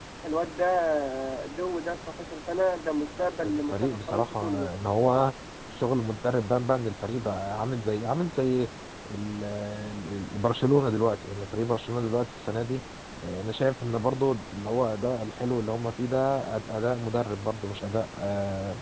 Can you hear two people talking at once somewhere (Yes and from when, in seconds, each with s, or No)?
Yes, from 3.4 s